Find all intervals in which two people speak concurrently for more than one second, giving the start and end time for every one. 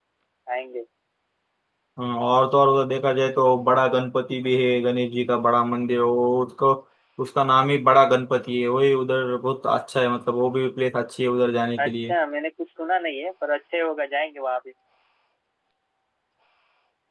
none

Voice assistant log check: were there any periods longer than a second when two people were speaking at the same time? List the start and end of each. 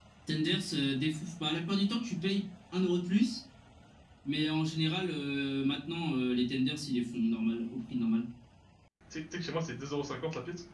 none

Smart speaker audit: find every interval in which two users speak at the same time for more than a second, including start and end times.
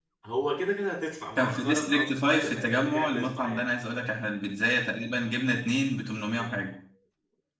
1.4-3.7

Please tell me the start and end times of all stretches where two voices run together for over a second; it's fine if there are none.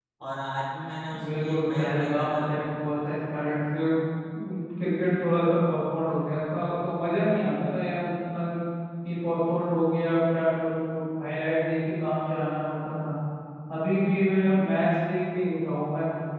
1.2-2.4

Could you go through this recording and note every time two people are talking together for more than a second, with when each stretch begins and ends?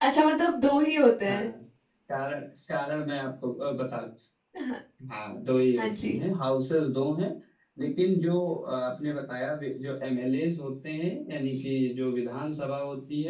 none

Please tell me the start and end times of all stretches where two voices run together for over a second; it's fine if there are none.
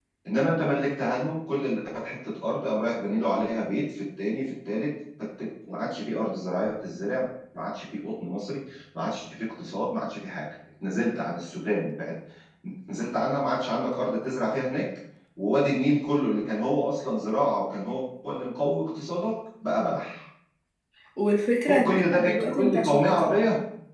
21.7-23.2

